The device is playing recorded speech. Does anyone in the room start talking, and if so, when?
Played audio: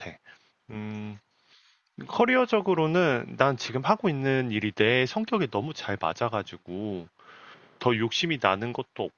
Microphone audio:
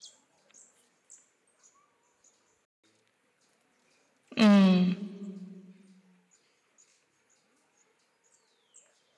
4.4 s

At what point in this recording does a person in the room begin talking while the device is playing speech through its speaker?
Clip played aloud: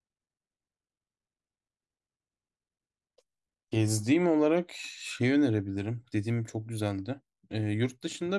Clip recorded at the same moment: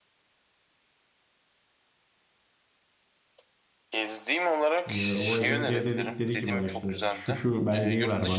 4.9 s

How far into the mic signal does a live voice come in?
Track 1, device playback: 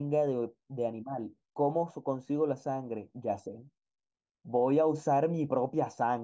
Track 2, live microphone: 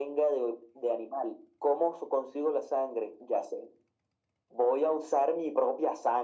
none

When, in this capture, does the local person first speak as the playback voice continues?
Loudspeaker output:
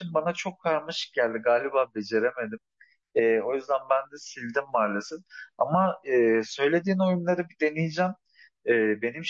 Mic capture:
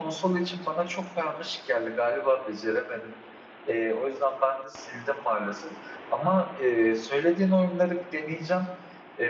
none

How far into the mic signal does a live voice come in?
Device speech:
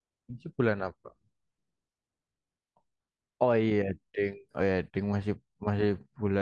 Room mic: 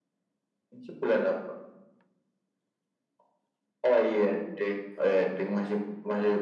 none

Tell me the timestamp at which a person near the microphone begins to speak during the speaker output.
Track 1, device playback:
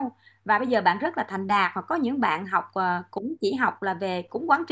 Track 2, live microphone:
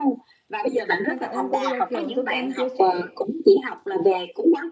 1.1 s

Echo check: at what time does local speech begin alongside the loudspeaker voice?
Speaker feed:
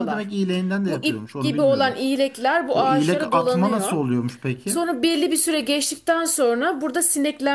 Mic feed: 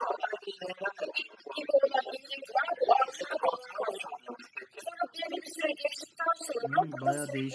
6.6 s

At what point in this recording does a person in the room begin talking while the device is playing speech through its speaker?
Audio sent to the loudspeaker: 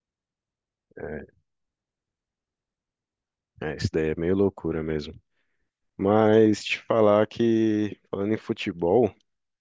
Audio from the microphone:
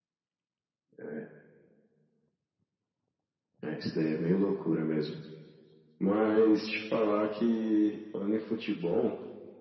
none

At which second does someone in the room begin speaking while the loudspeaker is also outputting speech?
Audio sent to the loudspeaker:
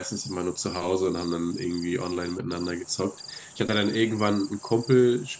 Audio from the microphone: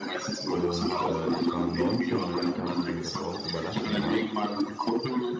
0.5 s

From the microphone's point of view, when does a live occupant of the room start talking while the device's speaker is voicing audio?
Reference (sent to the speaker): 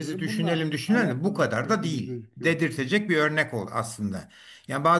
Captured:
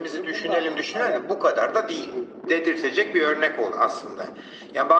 none

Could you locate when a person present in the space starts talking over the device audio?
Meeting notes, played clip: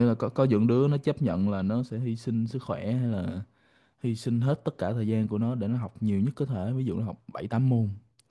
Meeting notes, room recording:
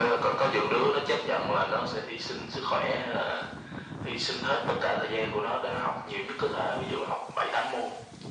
none

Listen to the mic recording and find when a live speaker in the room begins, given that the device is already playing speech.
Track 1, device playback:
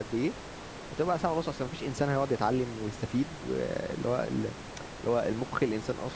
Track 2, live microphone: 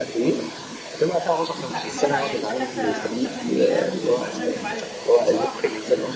1.7 s

